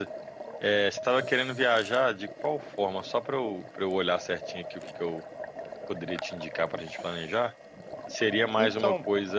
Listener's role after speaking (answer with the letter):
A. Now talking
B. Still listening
B